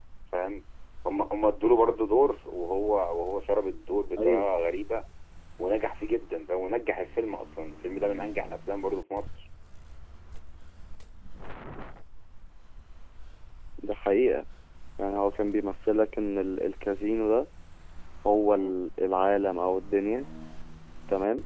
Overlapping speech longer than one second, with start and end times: none

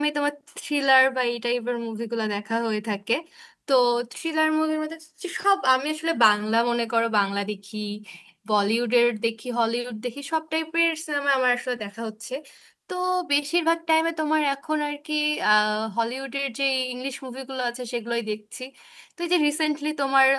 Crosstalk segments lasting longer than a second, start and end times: none

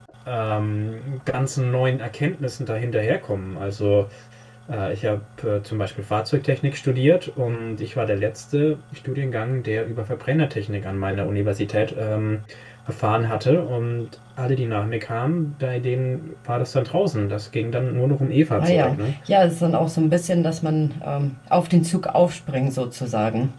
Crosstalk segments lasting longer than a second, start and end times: none

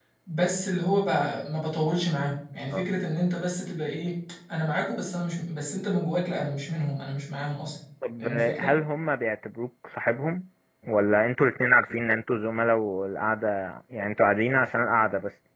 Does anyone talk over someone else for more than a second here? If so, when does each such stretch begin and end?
none

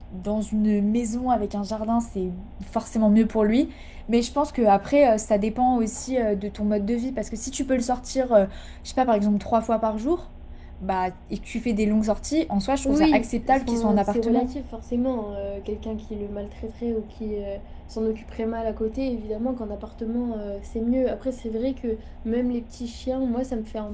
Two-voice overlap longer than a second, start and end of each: 12.8-14.6

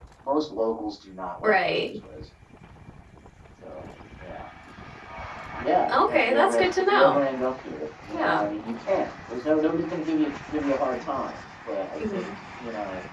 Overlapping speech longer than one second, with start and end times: 5.9-7.2

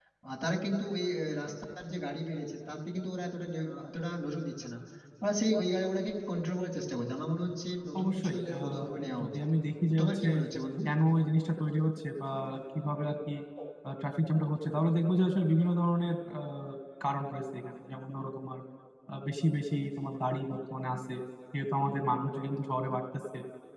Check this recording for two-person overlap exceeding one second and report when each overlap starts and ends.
8.0-9.4

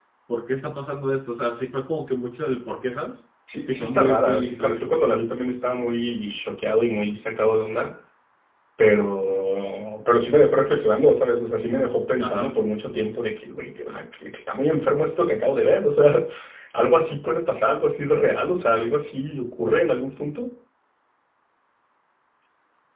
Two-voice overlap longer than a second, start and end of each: 3.6-4.9

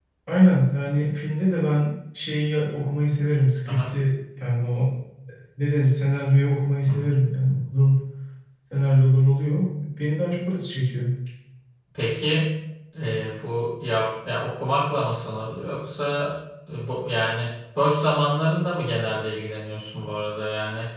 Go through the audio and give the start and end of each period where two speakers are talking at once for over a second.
none

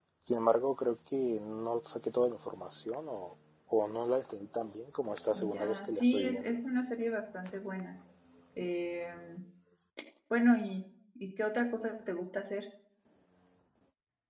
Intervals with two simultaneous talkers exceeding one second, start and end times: 5.3-6.5

